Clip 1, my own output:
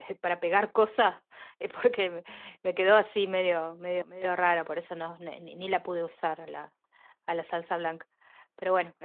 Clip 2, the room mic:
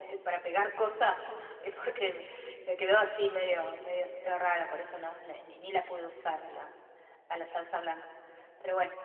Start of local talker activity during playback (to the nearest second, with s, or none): none